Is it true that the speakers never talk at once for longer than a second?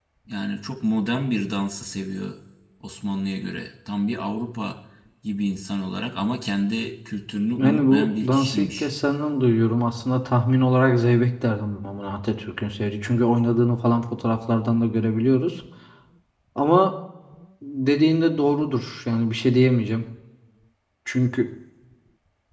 No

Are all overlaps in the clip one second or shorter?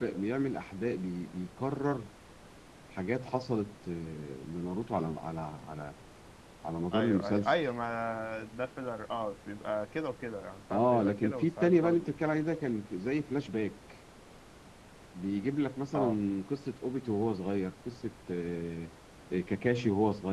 No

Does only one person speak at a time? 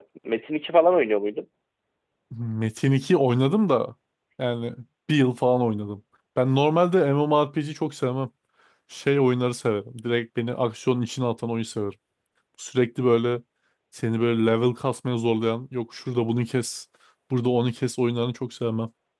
Yes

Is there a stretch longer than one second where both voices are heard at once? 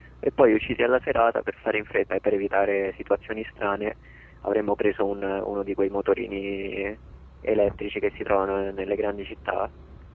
No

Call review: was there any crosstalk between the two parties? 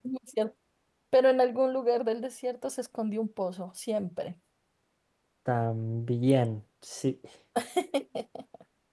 No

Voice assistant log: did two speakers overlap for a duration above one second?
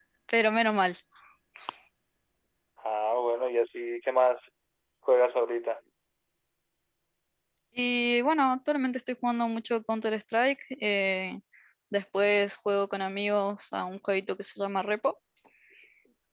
No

